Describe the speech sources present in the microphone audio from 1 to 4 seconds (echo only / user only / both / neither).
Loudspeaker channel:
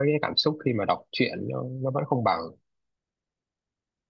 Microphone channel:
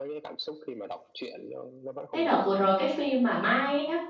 both